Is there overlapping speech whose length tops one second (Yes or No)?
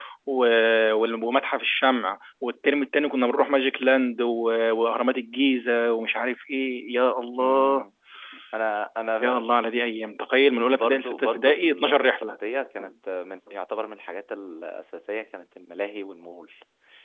Yes